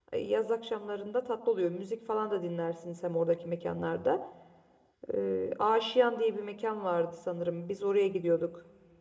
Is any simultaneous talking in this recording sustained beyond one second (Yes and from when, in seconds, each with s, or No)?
No